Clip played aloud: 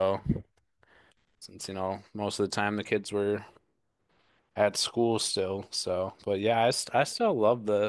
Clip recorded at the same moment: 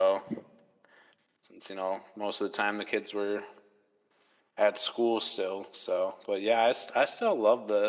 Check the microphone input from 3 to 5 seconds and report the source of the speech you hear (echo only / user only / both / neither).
echo only